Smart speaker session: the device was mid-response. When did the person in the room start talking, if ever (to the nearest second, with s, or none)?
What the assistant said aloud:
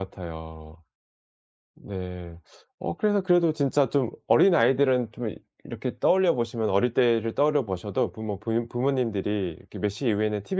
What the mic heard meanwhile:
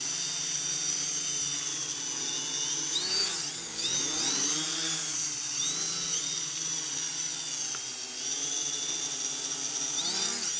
none